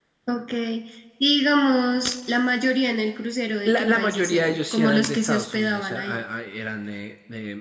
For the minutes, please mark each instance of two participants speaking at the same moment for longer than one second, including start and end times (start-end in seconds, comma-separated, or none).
3.6-6.2